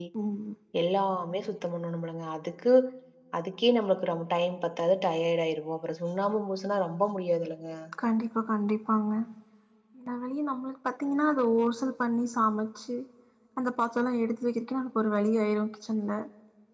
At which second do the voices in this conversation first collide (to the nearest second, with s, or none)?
none